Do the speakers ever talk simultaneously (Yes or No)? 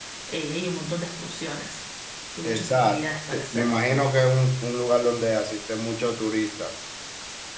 Yes